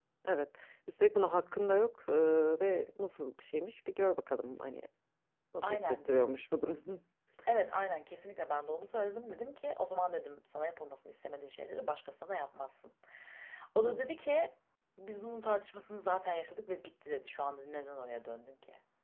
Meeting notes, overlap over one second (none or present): none